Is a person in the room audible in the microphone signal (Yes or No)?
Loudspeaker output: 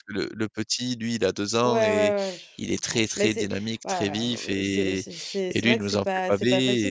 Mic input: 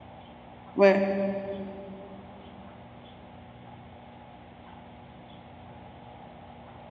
Yes